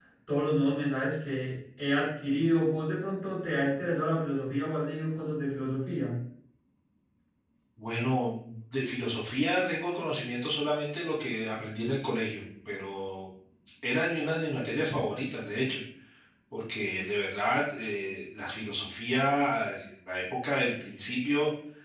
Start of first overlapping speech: none

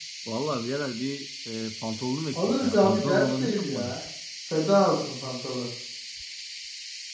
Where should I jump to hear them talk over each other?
2.3 s

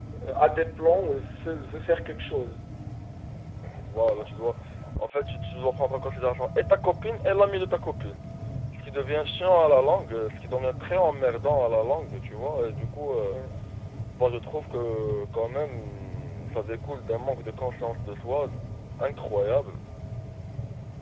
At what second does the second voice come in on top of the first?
none

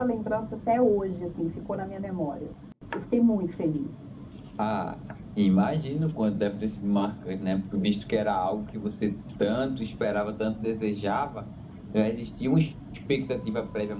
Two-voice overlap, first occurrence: none

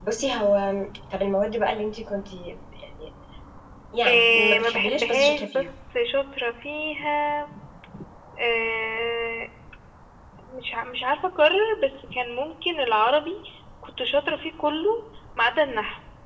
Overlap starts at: 4.1 s

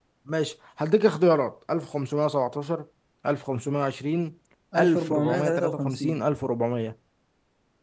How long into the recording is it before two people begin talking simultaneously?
4.8 s

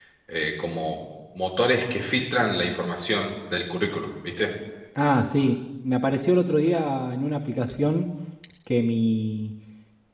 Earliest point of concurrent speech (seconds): none

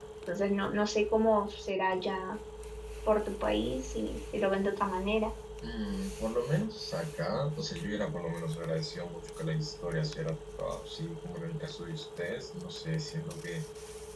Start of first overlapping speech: none

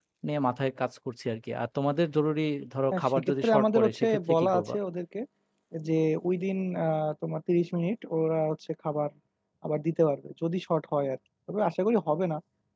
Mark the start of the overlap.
2.9 s

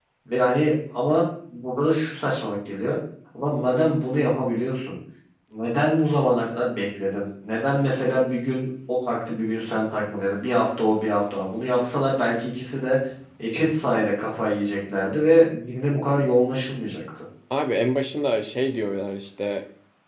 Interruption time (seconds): none

